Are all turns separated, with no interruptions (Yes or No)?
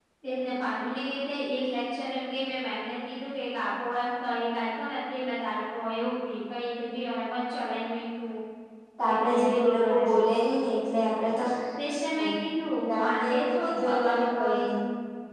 No